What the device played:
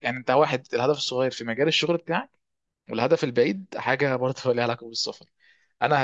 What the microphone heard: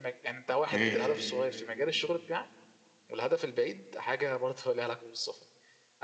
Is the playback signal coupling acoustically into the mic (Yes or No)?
Yes